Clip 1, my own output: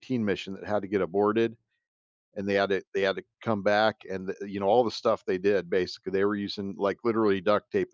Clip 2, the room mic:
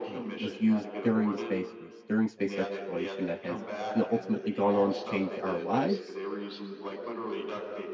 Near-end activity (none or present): present